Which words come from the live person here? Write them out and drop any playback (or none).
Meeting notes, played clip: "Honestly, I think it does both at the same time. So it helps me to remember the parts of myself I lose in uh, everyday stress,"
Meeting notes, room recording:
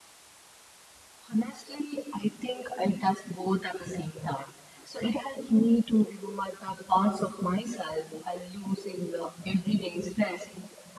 none